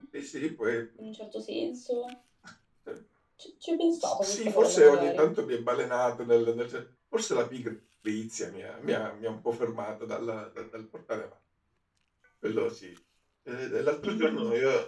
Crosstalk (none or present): present